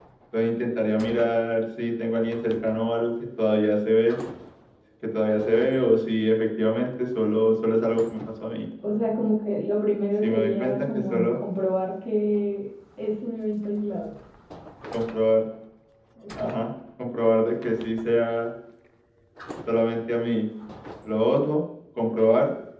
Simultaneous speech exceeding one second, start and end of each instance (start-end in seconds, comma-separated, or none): 10.2-11.4